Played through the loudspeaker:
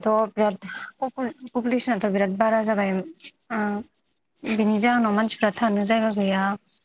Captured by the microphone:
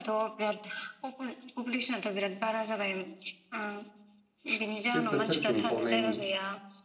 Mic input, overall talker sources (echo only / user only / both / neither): both